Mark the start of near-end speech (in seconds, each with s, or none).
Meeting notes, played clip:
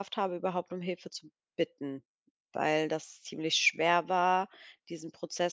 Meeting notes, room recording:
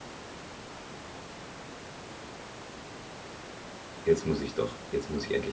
4.0 s